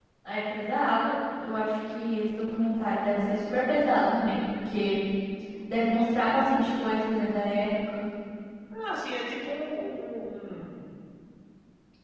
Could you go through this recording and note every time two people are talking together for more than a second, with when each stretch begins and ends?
none

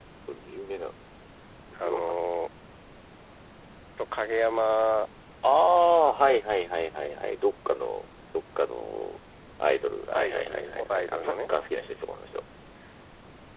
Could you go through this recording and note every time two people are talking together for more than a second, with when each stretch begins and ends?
10.1-11.5

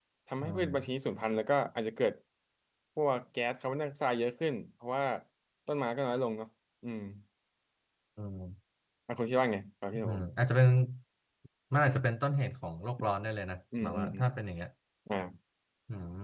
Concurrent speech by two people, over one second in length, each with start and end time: none

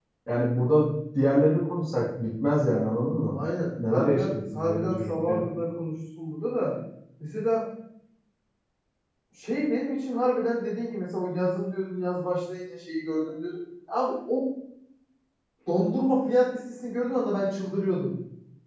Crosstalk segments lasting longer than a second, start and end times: 3.8-5.4

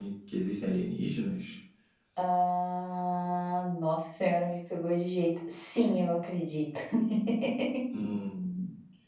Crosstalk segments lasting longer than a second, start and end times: none

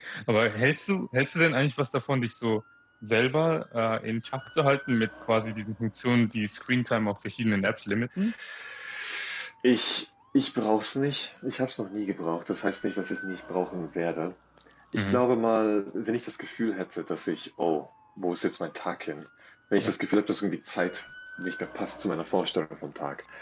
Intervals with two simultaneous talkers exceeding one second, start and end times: none

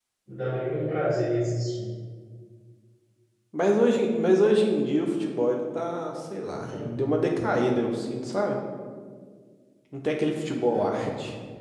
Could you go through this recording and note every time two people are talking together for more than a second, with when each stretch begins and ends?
none

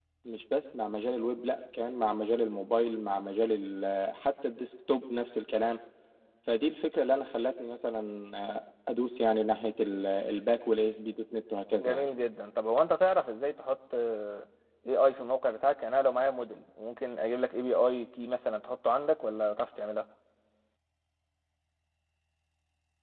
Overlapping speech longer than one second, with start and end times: none

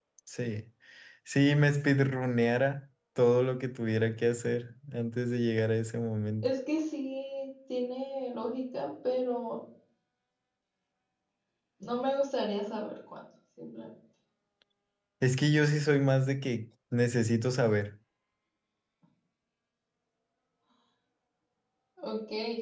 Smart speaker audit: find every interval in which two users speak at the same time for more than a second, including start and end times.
none

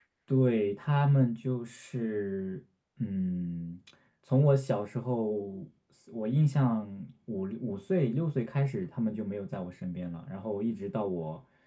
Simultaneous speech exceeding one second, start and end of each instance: none

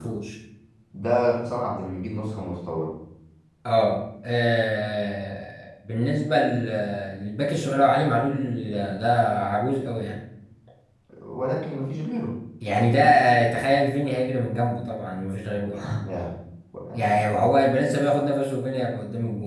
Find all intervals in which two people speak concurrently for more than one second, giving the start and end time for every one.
none

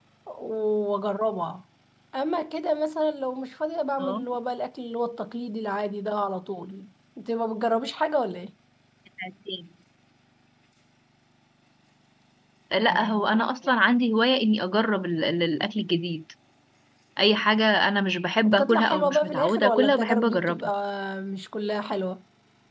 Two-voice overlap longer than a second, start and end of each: 18.4-20.7

